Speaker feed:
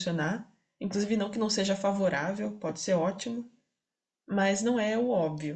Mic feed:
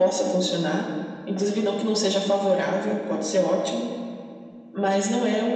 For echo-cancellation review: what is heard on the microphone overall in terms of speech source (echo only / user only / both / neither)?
echo only